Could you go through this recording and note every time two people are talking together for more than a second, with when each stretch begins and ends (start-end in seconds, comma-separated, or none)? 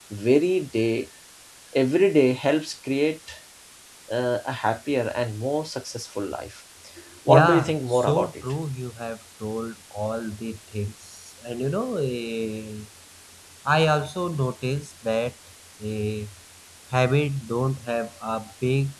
7.3-8.6